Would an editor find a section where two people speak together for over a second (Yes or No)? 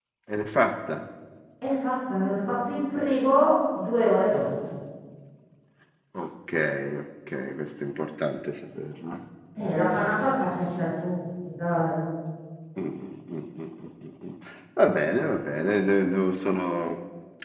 No